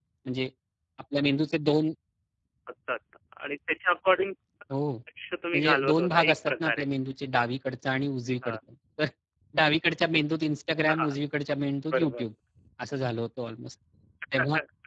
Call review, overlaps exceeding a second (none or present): present